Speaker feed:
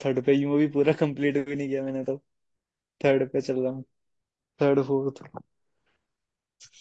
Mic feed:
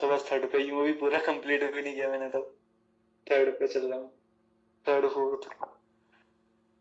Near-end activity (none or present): none